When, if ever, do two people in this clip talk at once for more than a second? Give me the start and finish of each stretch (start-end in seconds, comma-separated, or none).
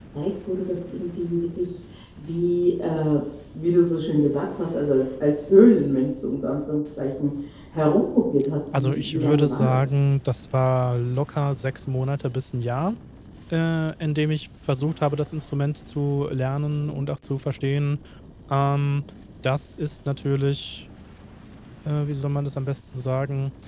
8.7-10.0